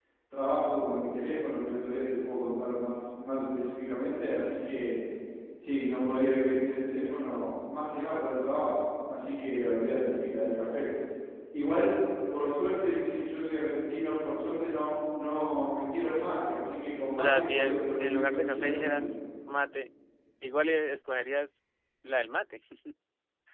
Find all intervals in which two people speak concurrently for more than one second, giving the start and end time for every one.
17.2-19.1

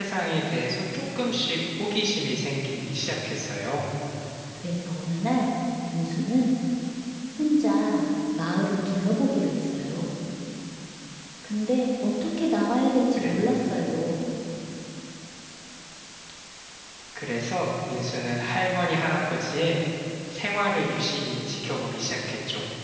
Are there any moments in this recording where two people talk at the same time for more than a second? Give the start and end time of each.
none

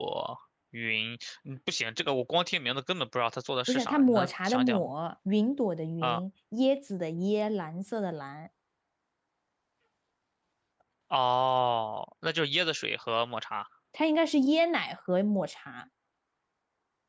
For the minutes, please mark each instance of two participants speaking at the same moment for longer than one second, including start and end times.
3.7-4.9

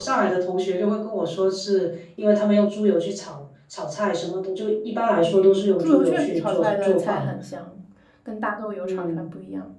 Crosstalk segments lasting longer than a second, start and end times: 5.2-7.3

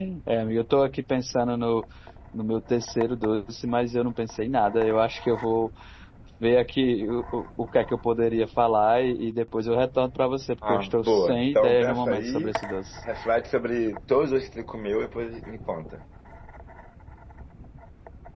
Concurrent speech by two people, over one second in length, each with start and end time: 10.7-12.5

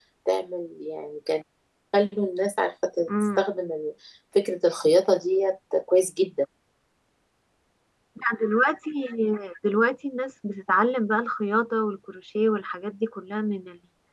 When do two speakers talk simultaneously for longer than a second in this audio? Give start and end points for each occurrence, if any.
none

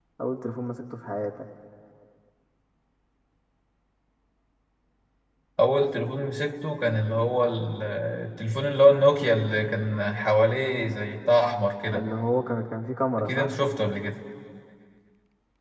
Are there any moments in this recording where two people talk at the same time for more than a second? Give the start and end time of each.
none

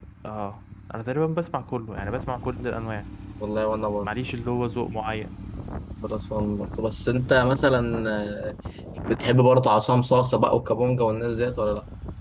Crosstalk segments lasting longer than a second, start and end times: none

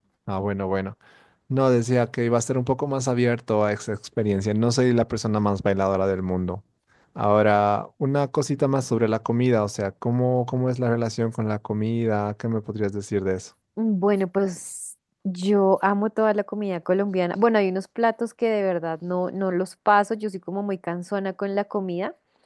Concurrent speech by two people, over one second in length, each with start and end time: none

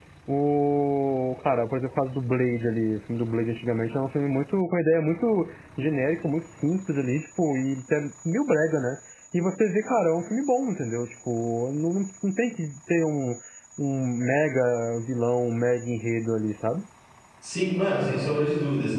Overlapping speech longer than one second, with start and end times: none

